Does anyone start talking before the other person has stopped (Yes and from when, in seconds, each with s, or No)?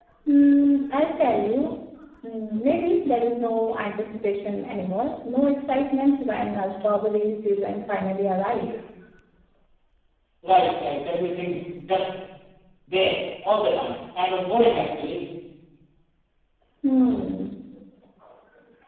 No